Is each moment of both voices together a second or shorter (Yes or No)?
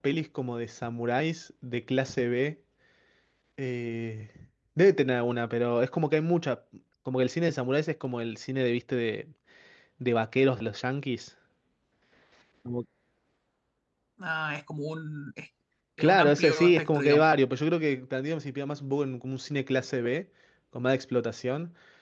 No